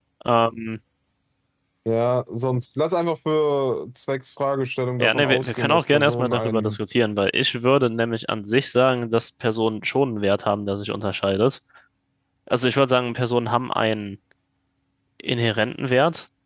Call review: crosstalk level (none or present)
present